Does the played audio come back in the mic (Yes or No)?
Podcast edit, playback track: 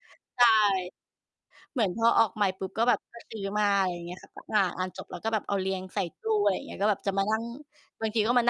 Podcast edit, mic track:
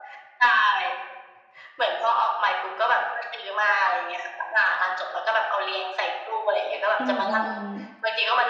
Yes